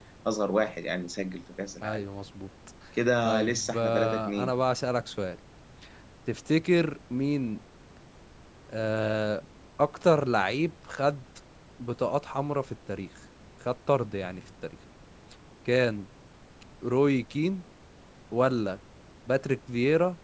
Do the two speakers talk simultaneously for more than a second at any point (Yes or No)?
Yes